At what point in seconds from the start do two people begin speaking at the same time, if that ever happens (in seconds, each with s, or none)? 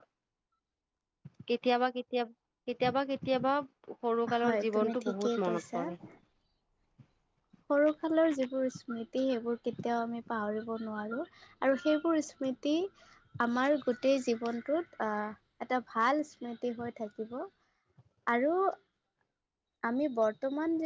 4.4 s